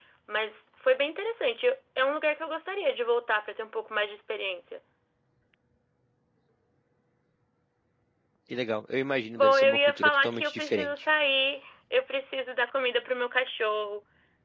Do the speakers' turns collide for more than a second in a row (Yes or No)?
Yes